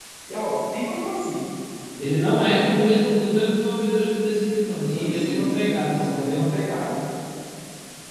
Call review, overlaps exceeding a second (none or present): present